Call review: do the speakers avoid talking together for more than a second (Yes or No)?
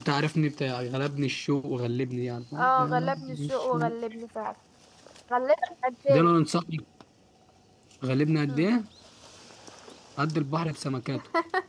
No